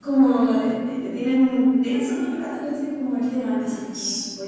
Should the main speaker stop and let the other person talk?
No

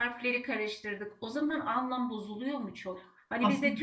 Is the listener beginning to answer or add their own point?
No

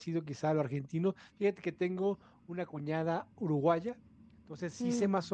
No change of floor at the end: Yes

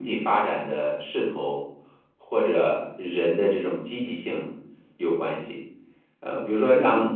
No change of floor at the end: Yes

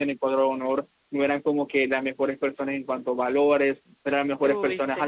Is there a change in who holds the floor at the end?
No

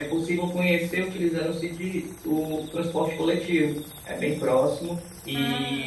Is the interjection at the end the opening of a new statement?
No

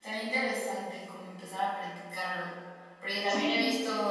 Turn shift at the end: No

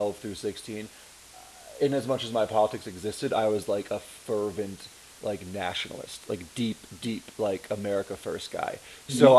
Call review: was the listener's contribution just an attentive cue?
Yes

